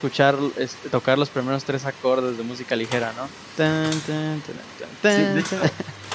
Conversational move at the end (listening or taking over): taking over